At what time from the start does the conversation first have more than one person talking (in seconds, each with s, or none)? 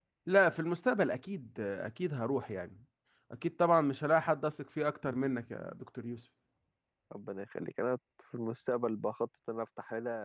none